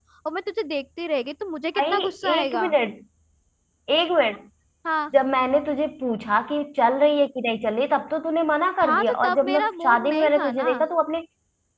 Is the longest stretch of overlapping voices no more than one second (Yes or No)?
No